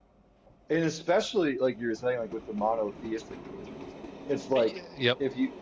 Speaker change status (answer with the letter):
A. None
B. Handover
A